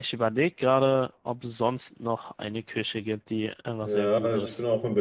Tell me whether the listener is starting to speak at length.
Yes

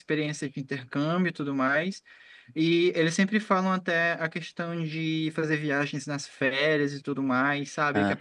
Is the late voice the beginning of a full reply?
No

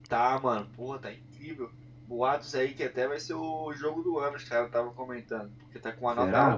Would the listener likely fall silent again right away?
Yes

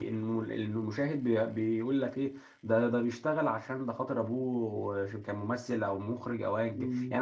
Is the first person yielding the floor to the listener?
Yes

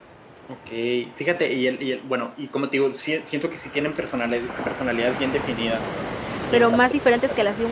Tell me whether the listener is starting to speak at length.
Yes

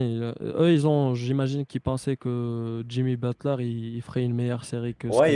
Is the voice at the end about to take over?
Yes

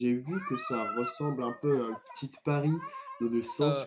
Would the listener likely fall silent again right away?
Yes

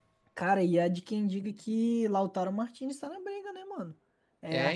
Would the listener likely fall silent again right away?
Yes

